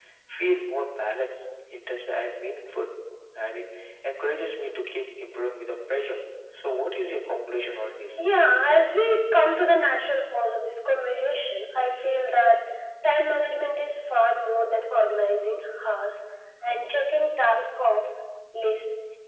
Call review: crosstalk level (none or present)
none